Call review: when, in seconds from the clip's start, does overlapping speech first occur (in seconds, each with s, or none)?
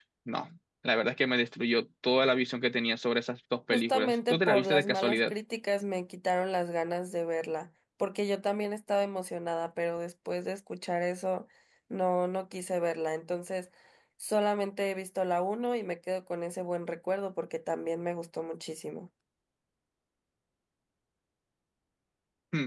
3.7 s